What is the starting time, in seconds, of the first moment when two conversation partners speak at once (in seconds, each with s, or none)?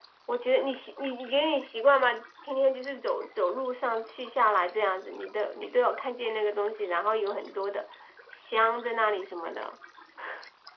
none